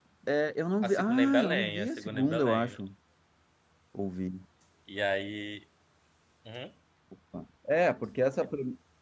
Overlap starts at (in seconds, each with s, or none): 0.8 s